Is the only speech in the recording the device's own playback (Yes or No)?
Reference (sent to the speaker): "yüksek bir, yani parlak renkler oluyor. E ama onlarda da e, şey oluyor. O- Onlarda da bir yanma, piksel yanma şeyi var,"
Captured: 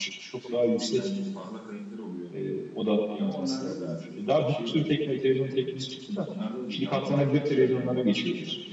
No